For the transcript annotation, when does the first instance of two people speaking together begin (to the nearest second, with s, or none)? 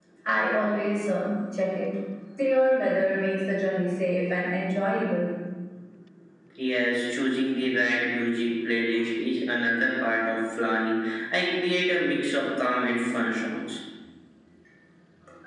none